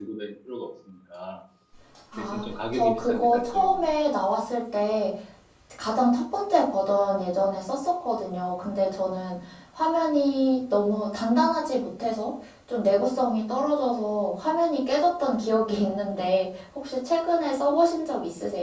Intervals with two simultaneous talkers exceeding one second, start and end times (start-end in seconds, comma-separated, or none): 2.2-3.8